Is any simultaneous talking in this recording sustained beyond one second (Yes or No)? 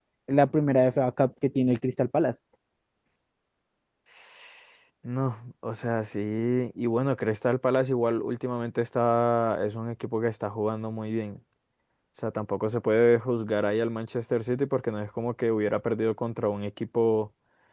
No